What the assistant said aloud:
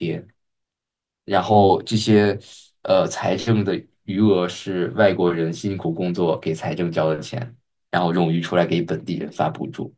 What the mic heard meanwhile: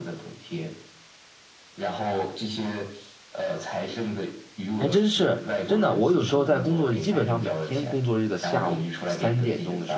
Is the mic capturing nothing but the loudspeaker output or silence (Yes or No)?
No